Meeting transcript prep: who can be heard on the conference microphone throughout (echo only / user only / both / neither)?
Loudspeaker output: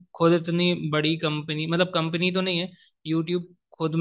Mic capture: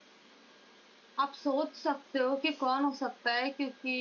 user only